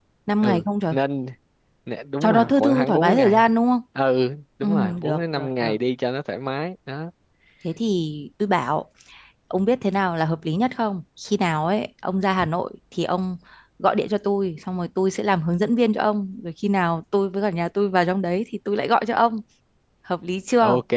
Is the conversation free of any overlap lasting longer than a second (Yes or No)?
No